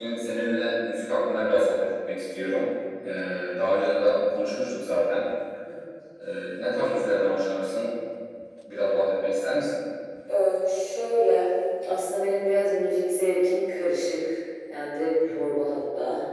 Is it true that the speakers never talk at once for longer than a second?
Yes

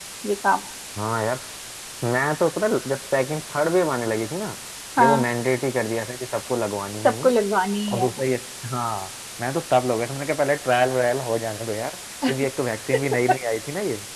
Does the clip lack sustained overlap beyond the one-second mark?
Yes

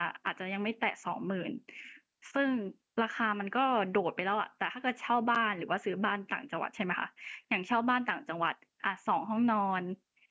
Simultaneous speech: No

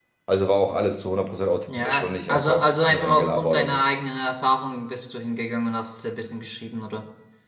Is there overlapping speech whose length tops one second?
Yes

